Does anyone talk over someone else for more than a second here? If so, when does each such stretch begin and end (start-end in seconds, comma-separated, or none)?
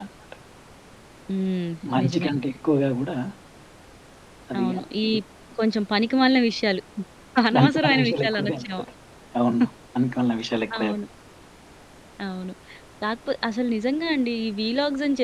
7.5-8.8